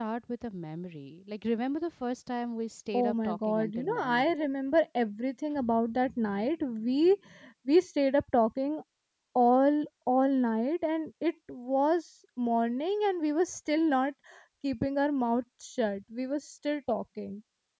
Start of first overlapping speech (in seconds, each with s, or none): 2.9 s